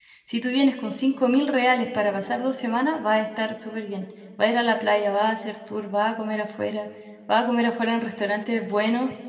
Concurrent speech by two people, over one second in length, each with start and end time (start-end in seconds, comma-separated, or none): none